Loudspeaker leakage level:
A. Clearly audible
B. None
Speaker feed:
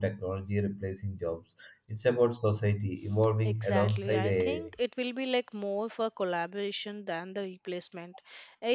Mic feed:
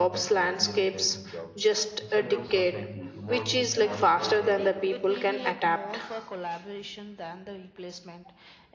A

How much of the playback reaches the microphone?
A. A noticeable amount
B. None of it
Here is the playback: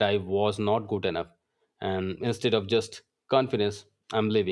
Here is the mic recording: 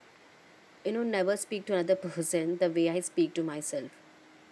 B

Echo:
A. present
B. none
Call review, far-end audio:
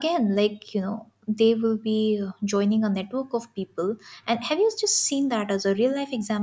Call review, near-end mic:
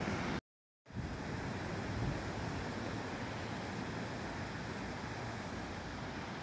B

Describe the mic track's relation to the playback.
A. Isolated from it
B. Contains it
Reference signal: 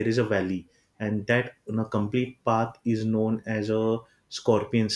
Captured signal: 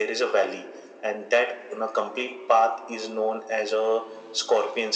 B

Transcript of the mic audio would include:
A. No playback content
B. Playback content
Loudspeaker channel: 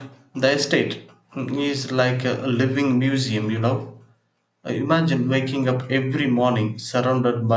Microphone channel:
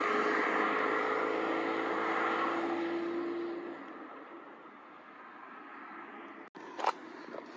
A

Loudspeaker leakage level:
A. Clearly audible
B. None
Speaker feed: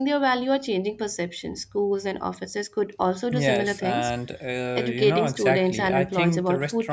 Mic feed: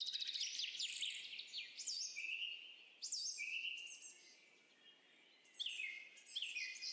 B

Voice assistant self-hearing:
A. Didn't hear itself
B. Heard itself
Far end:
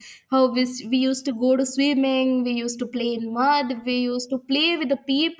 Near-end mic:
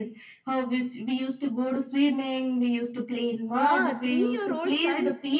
B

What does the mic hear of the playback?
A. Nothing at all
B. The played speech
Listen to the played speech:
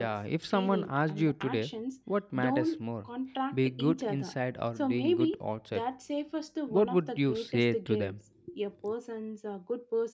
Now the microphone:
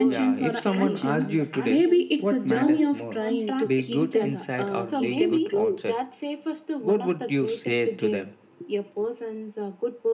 B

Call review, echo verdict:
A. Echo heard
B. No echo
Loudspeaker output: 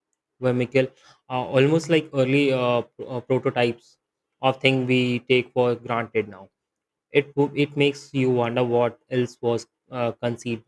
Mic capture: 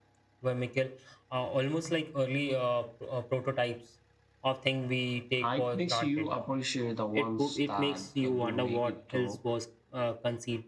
A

